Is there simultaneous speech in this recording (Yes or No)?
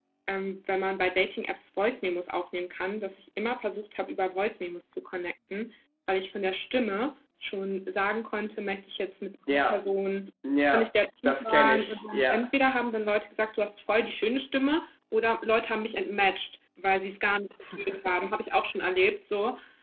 Yes